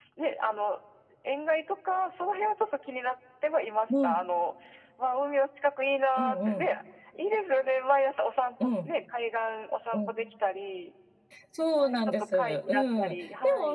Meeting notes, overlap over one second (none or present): present